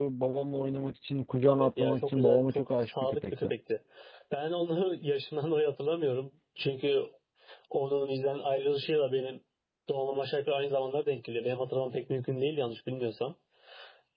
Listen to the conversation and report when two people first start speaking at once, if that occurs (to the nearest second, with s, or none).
2 s